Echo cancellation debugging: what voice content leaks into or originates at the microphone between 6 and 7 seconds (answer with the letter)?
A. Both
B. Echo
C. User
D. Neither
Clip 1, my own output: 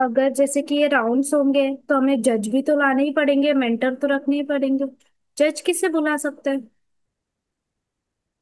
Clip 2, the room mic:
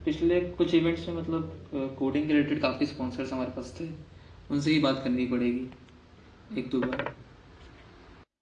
C